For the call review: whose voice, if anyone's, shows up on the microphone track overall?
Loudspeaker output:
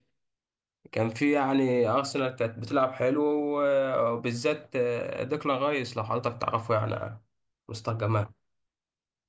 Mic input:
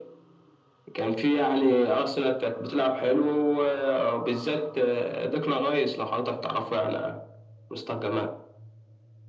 echo only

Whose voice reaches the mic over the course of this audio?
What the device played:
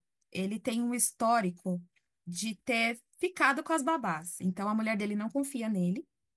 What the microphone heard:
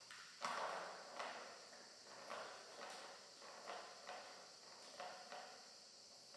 neither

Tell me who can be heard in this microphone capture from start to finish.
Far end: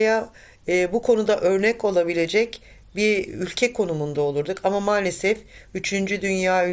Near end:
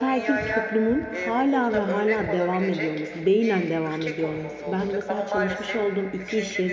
both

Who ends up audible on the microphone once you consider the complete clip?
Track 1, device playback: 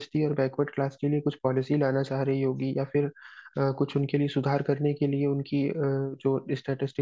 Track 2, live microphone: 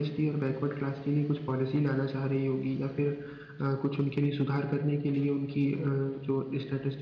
echo only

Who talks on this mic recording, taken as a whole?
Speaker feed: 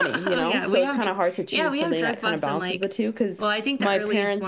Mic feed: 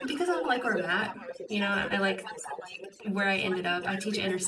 both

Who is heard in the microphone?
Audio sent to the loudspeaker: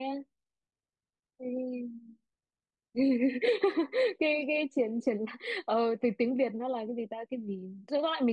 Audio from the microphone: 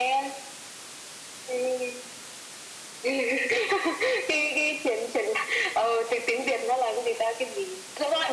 echo only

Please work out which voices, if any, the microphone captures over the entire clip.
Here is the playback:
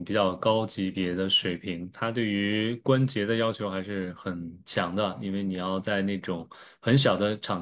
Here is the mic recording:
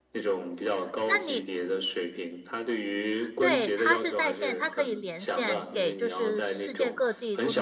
both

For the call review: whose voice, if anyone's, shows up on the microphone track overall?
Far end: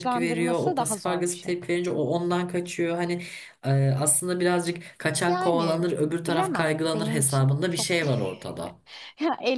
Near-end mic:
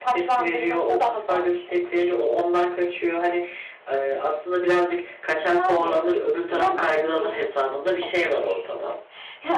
echo only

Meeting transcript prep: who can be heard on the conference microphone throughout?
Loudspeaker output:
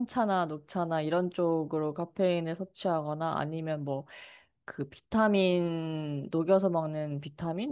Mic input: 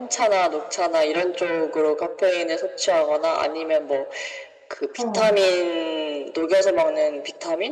both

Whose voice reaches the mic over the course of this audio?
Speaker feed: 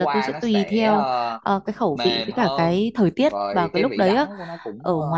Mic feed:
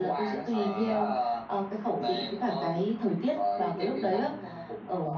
both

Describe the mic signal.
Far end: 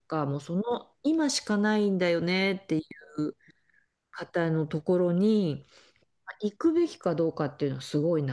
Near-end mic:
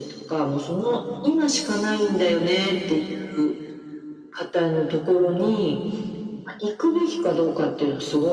echo only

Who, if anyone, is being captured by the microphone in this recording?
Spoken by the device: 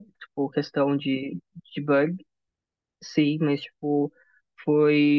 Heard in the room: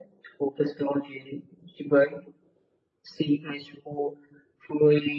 echo only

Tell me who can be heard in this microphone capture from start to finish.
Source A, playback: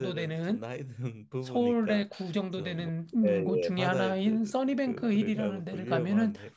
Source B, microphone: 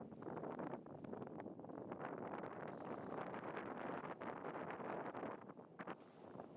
neither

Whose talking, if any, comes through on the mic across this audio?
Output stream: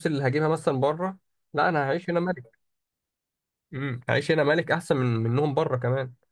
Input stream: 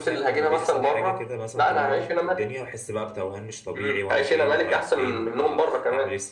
both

